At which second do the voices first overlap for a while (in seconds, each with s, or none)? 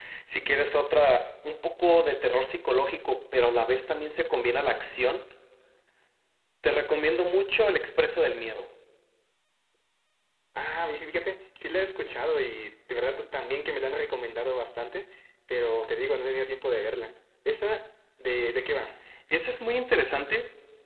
none